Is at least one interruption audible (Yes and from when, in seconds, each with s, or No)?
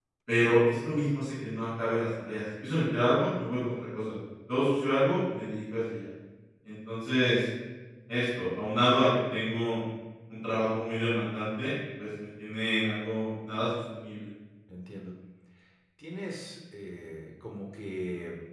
No